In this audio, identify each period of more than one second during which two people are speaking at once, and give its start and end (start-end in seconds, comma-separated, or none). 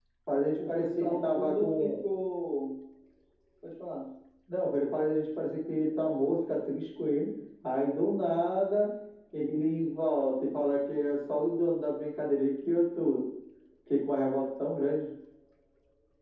0.6-1.9